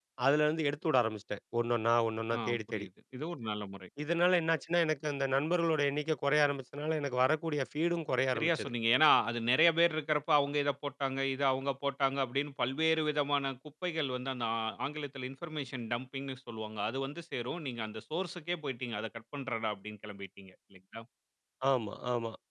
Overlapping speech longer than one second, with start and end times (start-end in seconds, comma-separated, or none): none